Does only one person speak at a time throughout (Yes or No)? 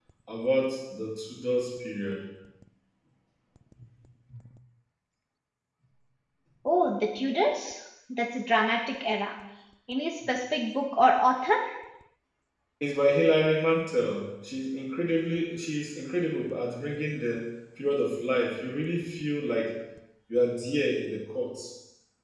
Yes